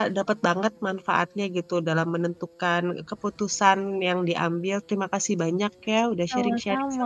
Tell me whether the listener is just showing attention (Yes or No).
No